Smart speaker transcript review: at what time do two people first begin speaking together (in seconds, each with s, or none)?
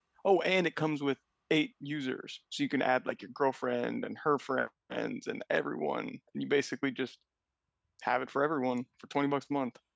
none